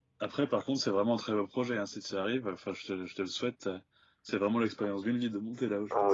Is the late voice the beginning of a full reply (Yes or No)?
Yes